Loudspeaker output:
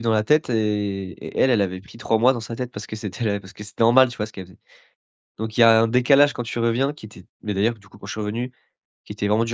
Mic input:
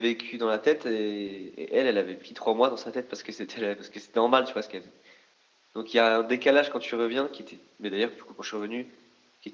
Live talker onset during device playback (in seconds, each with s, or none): none